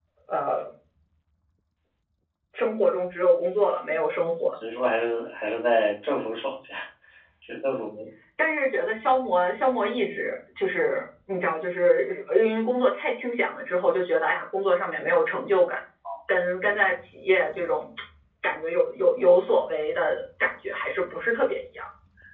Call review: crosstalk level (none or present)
none